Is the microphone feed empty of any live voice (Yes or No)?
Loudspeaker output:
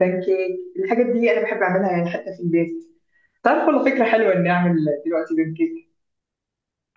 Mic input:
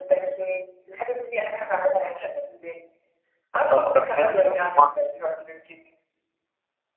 No